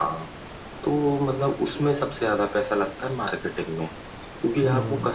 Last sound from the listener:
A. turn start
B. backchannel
B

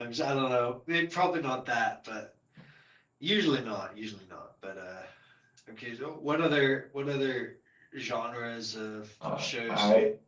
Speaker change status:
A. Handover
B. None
A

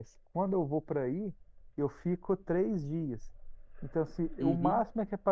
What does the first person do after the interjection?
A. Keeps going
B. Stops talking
A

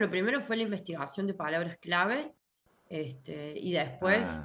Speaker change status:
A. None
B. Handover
A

